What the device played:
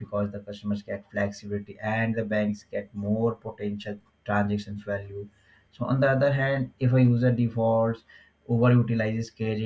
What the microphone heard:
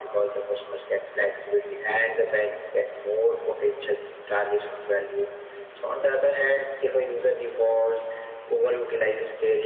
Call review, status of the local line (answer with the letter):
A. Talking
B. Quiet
B